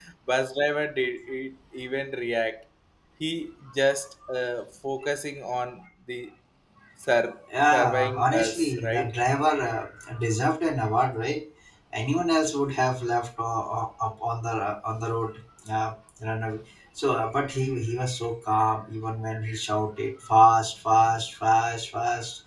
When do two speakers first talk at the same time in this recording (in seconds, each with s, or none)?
7.7 s